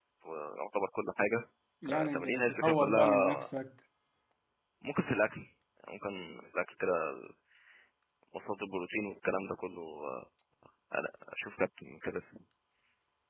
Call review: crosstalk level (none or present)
present